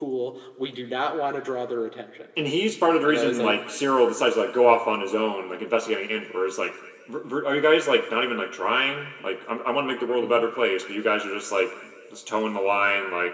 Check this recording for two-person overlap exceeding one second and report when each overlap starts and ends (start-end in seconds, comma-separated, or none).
none